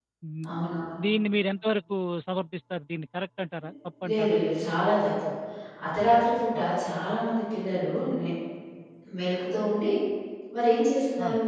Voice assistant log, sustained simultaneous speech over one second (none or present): none